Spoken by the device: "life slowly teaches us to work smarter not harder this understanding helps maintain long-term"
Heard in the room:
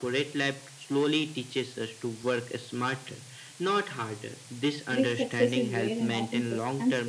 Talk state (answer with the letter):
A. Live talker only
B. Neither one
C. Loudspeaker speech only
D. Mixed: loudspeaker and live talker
D